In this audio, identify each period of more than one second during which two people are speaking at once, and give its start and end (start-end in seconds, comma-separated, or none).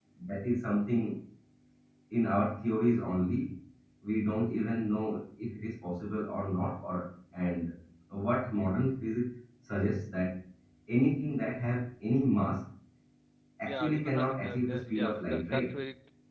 13.7-15.8